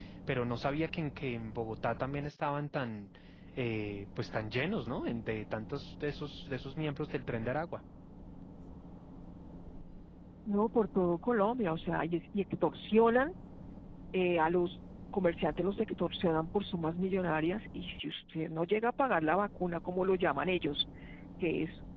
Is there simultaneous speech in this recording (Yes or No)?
No